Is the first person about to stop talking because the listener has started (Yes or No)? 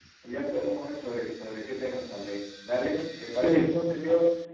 No